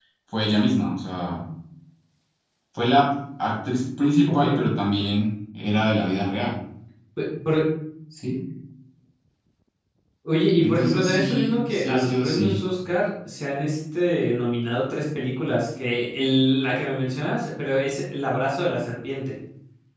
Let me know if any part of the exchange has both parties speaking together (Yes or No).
Yes